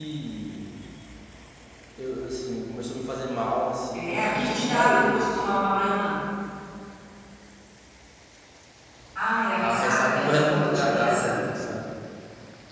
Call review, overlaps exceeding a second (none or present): present